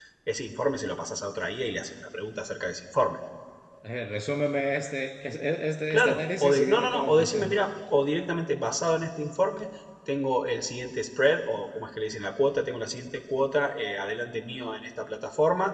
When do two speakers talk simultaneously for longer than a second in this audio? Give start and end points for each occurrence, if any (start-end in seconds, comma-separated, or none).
5.9-7.5